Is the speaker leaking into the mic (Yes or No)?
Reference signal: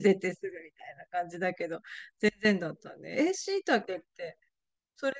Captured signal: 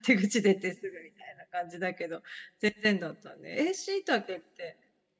Yes